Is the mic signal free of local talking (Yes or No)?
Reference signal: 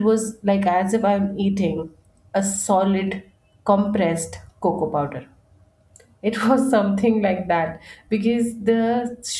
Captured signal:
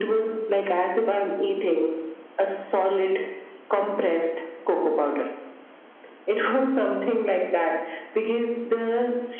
Yes